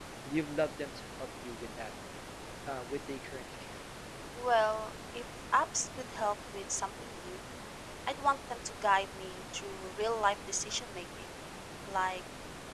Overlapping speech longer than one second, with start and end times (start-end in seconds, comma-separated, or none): none